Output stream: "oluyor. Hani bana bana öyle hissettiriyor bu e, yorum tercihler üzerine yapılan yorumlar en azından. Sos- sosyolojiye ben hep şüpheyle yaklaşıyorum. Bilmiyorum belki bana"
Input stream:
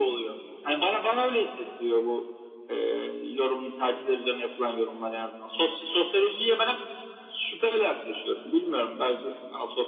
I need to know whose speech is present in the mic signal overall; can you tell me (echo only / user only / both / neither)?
echo only